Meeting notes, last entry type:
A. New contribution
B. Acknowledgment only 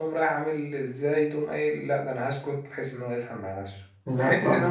B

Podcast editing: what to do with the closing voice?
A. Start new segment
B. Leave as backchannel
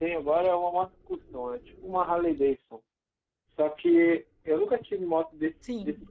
B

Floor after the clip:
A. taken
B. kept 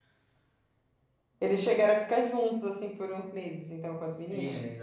A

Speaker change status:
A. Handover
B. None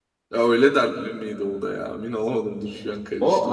A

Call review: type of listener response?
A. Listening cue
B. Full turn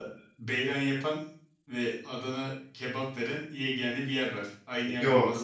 B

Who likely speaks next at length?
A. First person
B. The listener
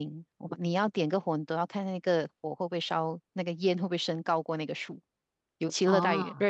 A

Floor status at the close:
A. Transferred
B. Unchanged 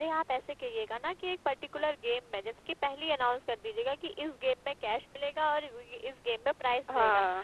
B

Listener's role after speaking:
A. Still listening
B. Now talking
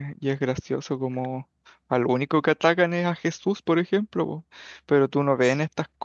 A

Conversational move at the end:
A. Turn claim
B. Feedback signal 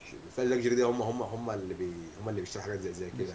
A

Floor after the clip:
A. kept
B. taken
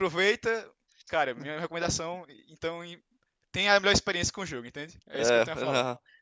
B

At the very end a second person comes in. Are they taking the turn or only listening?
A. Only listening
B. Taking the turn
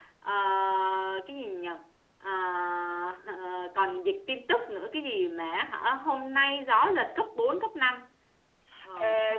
B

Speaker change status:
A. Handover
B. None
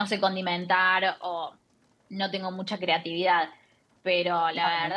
B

